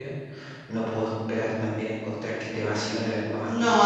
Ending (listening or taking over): taking over